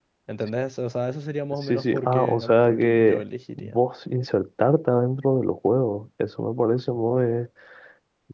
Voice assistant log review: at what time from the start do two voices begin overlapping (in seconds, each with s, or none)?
1.6 s